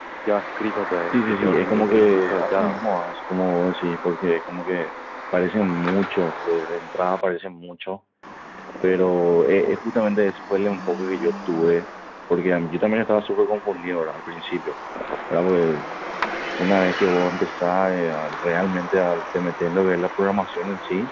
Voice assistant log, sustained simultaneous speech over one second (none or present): present